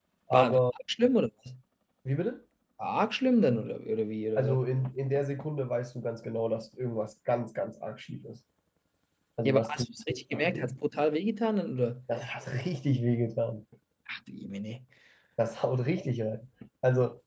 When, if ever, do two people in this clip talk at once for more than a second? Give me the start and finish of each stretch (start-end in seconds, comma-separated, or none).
9.4-10.7